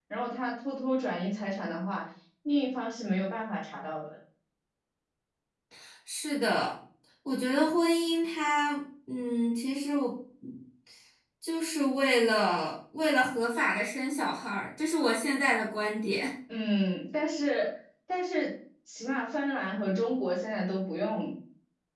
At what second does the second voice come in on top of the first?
none

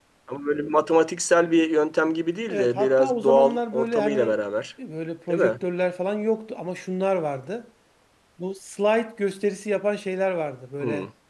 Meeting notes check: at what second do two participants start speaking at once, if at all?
2.5 s

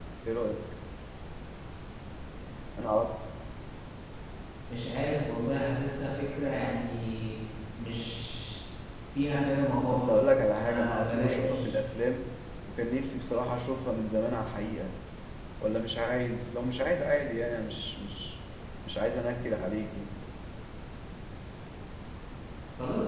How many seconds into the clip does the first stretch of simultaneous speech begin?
9.9 s

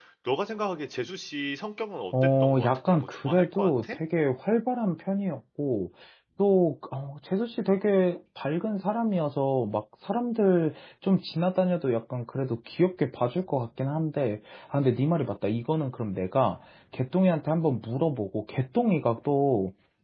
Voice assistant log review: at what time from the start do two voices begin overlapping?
2.1 s

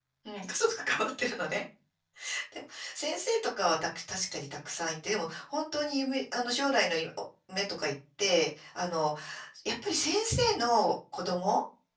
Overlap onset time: none

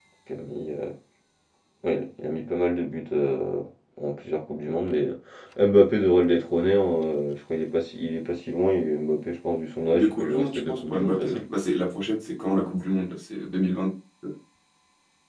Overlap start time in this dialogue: 9.9 s

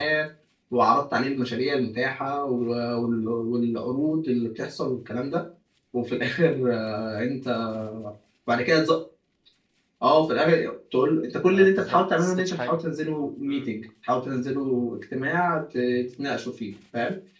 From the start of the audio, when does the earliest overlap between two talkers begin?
11.5 s

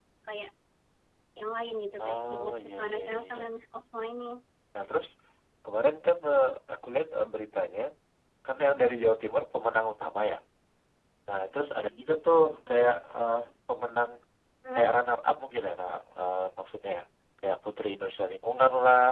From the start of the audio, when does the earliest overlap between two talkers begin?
2.0 s

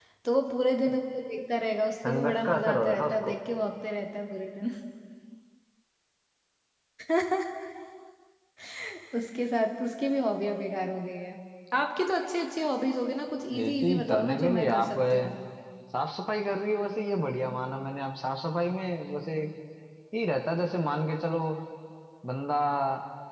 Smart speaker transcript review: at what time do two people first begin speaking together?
2.0 s

